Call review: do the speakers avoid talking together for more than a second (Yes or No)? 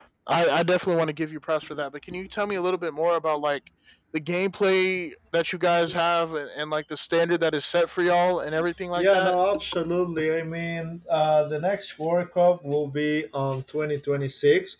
Yes